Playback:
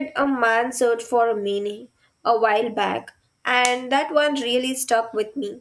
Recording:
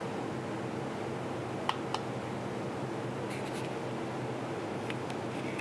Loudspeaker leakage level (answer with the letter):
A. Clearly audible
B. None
B